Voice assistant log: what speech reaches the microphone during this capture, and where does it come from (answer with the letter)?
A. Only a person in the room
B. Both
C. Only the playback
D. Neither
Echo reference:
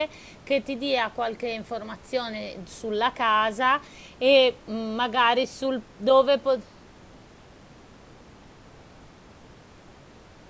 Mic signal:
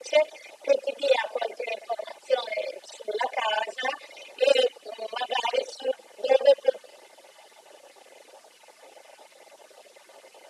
C